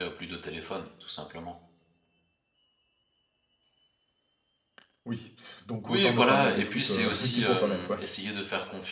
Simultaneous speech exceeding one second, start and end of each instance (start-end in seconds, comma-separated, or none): 5.8-8.0